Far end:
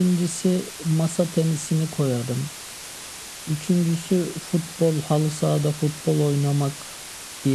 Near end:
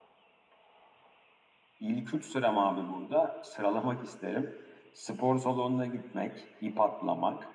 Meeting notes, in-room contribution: present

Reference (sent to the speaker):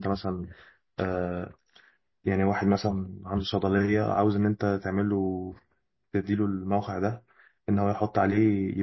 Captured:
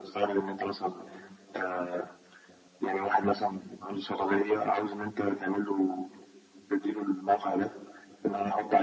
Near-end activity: none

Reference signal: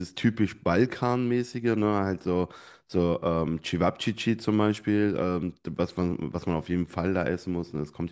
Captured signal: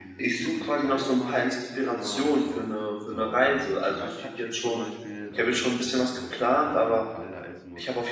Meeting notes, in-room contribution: present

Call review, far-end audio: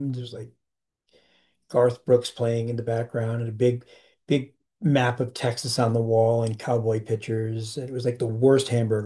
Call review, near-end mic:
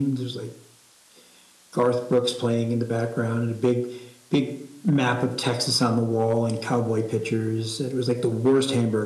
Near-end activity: none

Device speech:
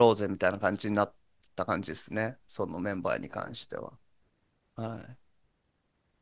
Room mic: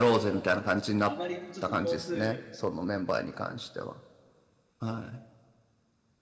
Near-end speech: present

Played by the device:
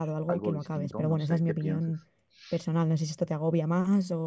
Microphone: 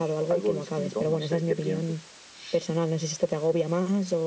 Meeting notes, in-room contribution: none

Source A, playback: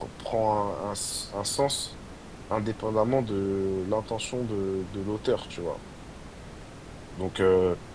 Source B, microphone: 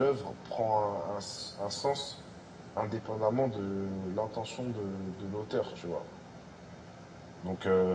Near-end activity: none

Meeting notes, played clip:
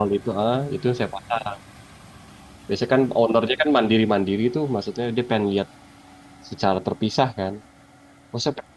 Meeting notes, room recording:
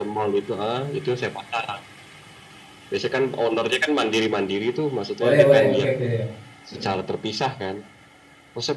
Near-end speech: present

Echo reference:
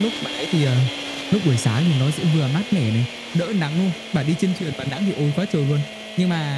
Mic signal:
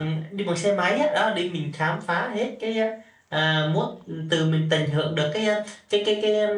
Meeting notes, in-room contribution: present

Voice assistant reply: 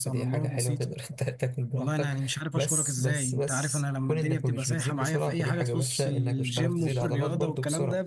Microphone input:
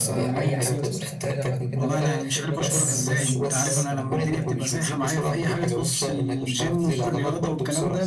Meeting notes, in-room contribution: present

